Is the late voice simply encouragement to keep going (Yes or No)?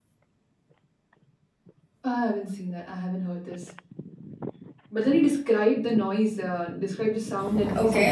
No